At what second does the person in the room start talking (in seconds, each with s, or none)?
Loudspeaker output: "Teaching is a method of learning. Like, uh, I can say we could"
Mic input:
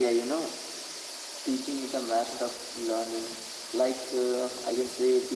none